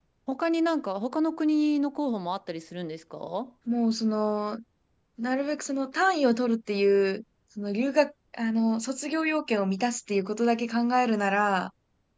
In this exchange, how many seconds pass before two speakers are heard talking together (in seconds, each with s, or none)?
none